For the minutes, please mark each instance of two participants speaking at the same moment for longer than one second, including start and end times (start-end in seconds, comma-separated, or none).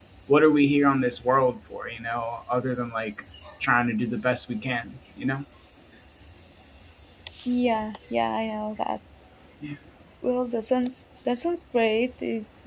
none